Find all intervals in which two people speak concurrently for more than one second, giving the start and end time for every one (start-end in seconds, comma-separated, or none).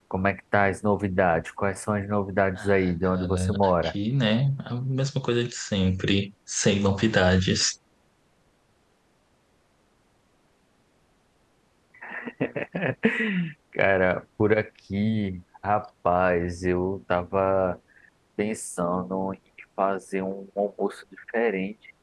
2.6-3.9